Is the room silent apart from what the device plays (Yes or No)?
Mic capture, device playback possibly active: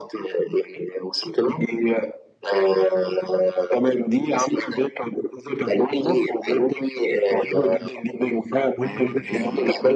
No